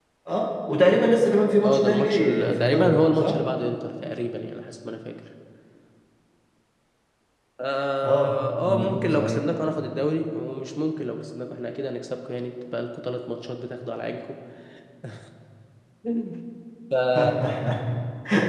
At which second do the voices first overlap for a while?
1.6 s

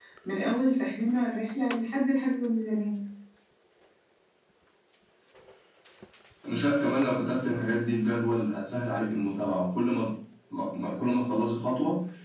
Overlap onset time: none

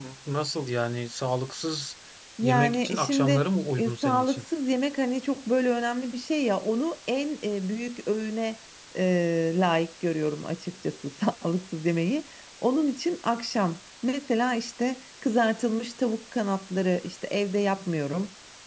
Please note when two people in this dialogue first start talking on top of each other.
2.4 s

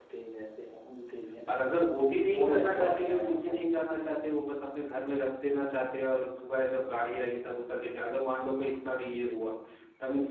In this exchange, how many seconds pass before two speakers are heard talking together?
2.4 s

